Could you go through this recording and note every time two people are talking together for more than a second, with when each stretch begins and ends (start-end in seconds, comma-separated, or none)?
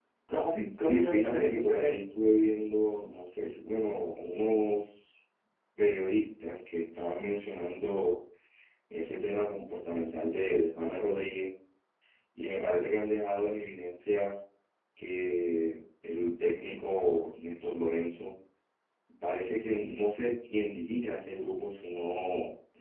0.8-2.0